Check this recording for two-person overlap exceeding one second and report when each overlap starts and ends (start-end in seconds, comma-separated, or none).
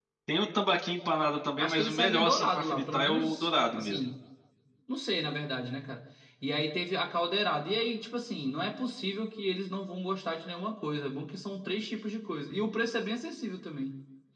1.6-4.0